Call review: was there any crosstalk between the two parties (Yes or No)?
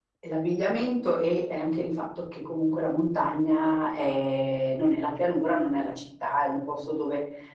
No